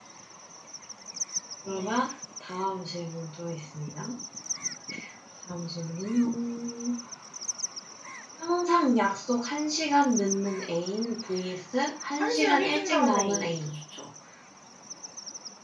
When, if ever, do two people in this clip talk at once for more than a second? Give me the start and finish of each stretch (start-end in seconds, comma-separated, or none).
12.2-13.8